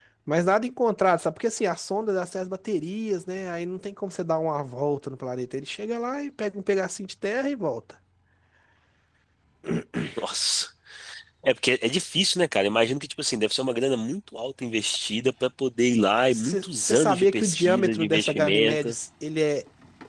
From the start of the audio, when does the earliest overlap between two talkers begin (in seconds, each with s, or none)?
16.3 s